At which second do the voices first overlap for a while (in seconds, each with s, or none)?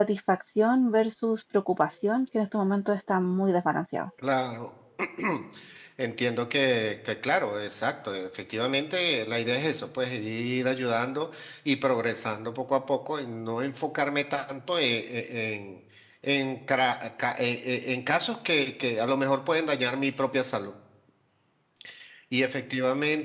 none